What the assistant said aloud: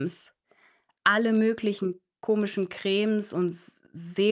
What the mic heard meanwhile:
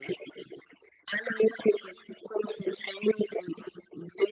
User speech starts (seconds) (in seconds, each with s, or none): none